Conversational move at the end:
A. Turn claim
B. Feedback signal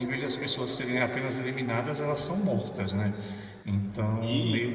B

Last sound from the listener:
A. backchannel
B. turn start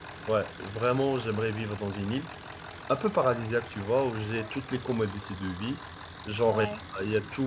A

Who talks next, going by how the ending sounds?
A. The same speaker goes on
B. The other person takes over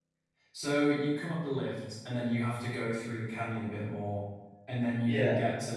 A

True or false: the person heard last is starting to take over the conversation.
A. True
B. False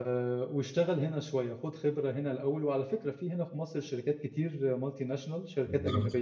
B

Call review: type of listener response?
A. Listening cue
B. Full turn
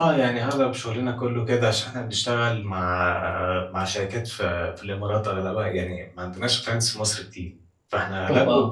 A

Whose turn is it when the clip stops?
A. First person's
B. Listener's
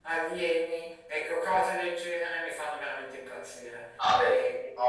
B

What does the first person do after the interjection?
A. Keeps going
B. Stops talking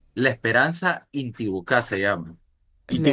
A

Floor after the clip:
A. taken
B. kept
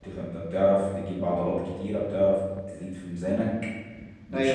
B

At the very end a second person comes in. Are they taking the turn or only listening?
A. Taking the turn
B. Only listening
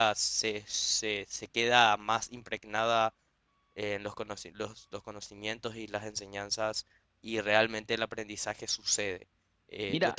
A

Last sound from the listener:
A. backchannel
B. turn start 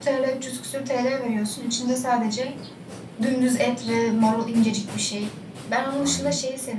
A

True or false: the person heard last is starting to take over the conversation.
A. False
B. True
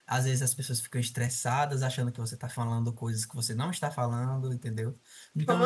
A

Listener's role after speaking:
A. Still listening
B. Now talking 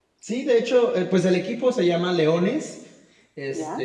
A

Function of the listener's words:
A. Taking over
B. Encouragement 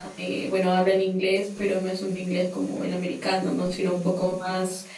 B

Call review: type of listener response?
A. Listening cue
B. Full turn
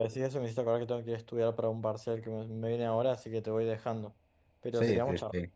B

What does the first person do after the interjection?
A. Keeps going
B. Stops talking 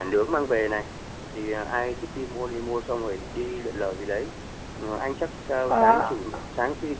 A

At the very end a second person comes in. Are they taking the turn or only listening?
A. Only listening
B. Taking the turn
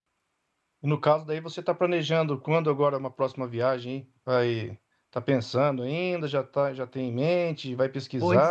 B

